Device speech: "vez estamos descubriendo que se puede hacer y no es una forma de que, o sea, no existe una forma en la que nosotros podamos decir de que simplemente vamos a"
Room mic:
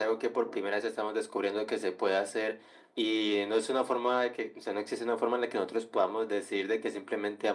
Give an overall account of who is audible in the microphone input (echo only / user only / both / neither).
echo only